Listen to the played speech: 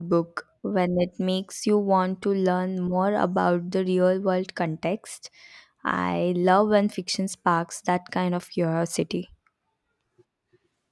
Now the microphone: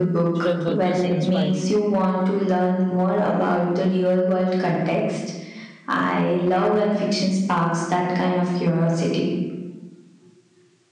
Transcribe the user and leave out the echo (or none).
strength was just inspiring.